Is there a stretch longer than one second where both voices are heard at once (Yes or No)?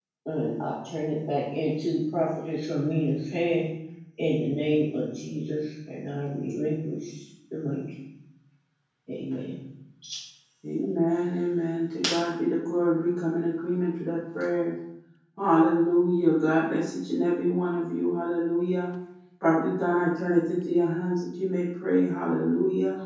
No